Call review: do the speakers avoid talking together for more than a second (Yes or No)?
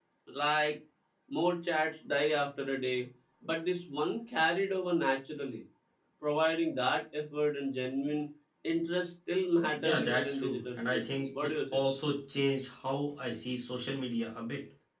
No